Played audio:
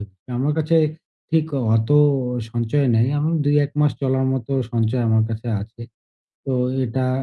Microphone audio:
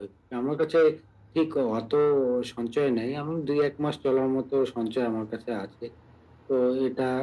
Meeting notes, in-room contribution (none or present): none